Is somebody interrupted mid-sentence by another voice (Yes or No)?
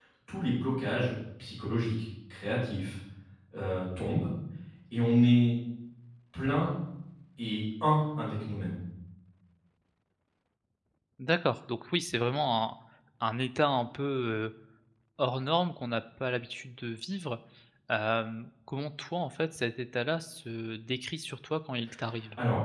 No